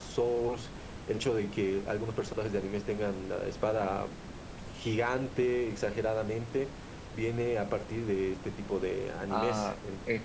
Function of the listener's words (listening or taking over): taking over